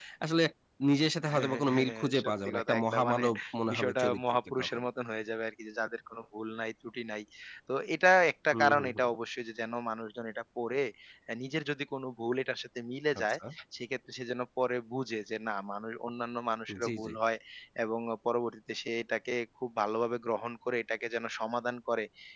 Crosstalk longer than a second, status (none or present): present